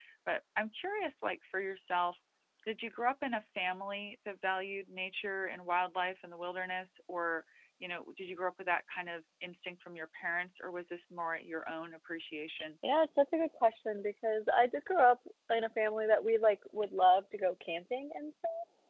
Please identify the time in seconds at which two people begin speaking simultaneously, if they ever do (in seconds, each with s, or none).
none